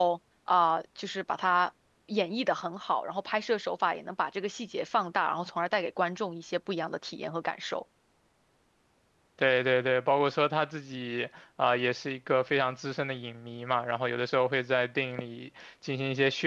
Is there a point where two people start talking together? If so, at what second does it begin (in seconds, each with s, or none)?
none